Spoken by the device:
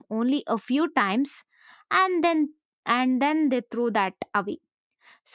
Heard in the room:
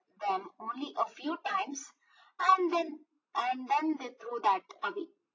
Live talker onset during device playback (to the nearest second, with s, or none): none